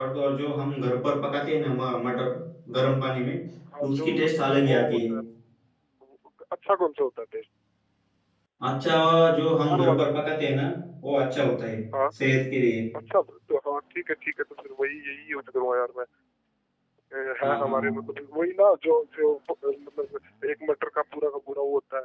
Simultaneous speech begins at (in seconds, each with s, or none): 3.9 s